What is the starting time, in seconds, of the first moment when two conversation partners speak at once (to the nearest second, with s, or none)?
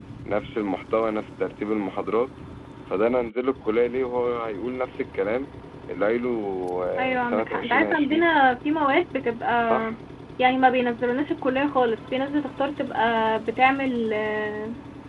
7 s